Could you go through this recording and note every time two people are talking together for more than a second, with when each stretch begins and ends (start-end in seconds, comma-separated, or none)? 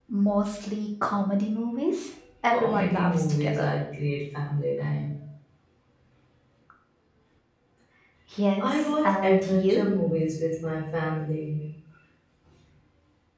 2.5-3.7, 8.6-9.8